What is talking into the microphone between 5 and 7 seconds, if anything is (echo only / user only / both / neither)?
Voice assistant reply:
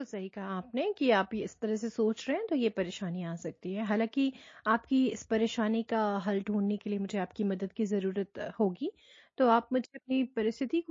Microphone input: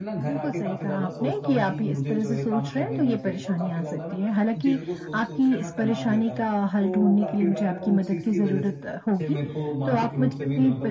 both